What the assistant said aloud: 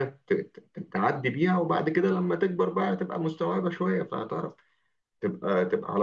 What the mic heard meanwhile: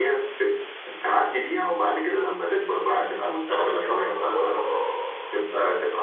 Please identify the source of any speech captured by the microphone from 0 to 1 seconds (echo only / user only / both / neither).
echo only